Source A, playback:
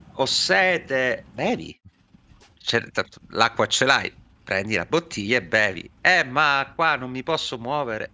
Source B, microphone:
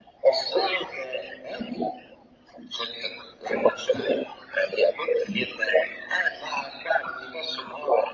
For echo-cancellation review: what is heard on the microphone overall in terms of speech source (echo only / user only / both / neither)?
echo only